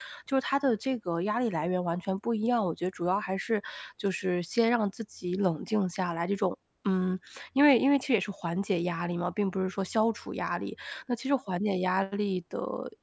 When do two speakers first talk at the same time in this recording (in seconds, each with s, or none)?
none